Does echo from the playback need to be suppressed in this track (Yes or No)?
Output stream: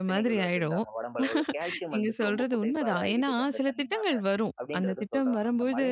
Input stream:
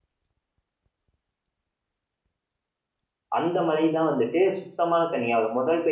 No